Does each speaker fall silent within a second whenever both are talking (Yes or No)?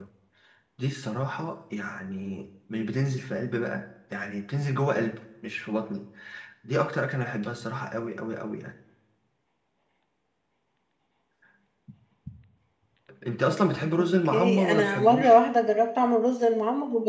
No